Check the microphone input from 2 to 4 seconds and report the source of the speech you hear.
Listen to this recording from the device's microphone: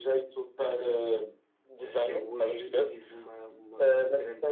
both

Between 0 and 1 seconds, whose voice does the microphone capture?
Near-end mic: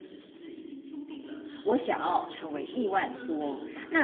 echo only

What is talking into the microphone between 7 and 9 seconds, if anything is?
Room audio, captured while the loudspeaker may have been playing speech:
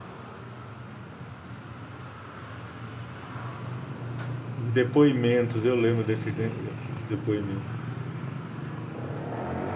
user only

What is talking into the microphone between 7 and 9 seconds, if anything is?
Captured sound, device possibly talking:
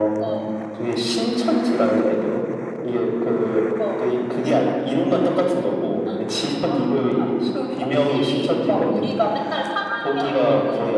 echo only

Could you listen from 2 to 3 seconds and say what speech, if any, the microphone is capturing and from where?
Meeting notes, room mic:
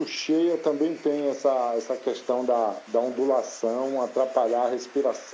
echo only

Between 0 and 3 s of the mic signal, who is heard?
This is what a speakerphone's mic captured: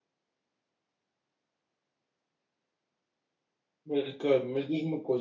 neither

